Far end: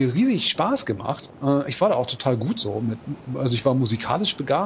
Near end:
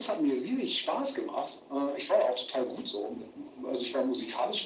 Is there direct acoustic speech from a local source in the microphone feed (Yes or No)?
No